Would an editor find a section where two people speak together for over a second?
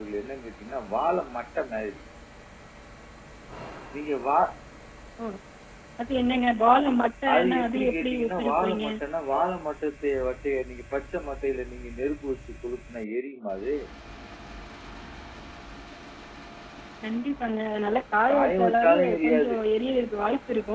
Yes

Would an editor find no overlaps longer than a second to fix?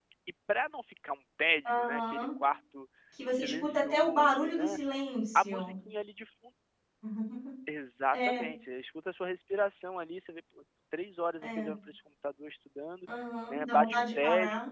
No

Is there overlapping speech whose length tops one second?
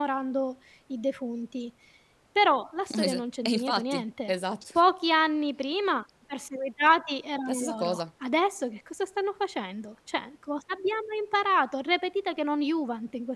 Yes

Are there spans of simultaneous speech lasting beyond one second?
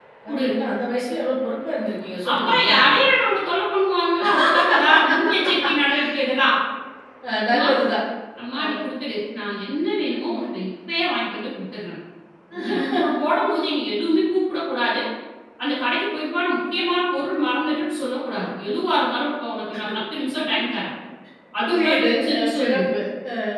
Yes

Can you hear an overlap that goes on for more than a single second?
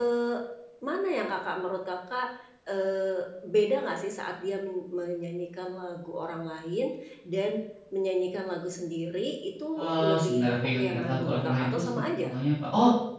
Yes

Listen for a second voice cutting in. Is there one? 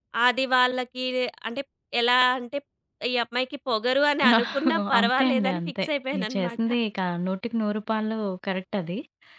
Yes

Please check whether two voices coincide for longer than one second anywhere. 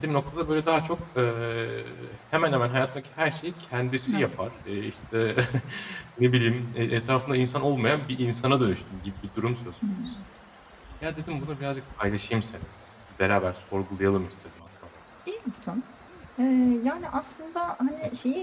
No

